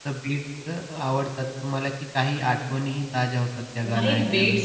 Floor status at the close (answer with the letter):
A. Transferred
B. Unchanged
A